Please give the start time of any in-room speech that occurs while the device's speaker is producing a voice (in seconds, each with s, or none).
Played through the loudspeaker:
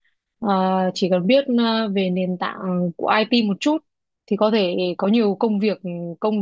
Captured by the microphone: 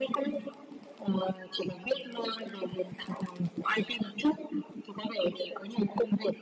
none